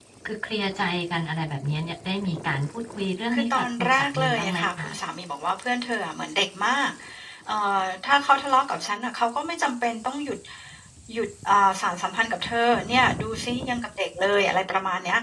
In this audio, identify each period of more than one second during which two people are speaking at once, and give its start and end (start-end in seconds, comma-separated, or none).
3.3-4.9